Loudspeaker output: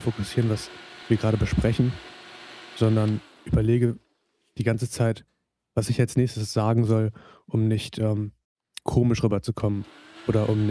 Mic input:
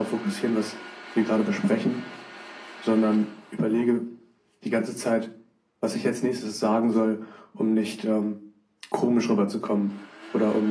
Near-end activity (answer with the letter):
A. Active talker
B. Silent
B